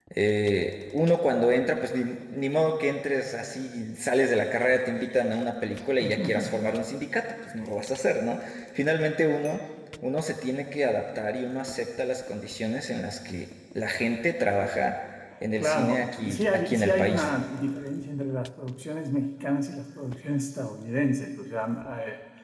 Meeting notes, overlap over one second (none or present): present